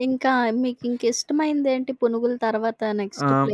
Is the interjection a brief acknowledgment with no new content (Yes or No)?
No